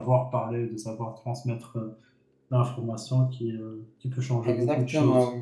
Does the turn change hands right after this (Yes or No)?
Yes